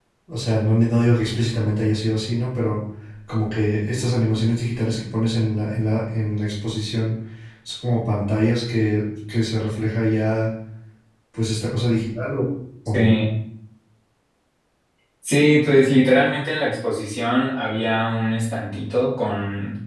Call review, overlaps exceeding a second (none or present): none